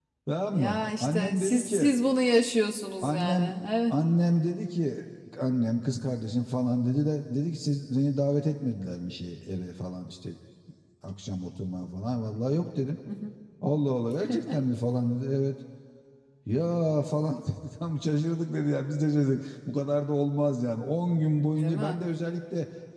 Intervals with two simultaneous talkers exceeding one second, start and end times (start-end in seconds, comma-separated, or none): 0.5-1.9